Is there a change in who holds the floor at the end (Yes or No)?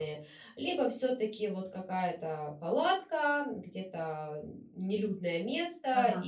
No